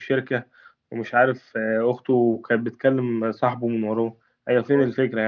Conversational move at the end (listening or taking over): taking over